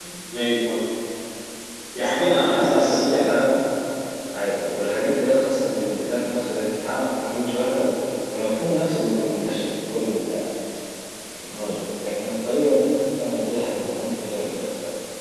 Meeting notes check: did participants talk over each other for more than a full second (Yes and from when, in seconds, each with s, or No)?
Yes, from 1.9 s